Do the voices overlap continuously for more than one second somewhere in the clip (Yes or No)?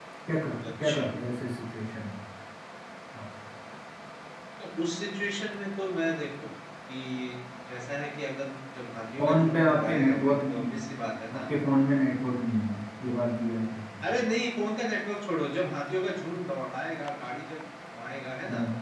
Yes